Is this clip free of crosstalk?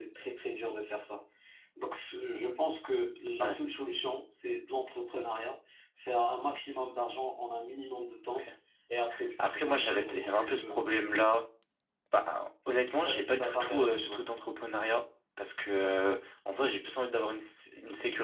No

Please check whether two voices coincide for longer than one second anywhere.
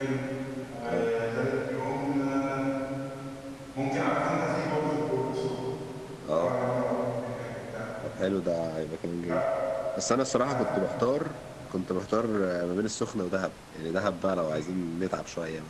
No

